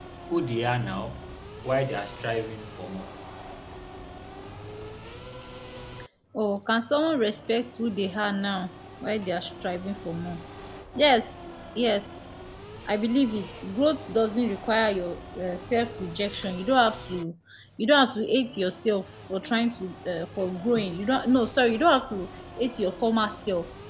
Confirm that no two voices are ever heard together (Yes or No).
Yes